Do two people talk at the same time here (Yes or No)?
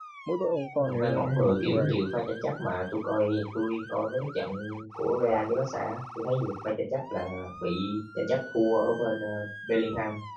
Yes